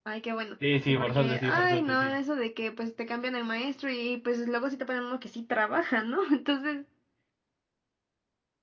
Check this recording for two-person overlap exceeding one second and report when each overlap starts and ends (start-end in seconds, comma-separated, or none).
0.9-2.1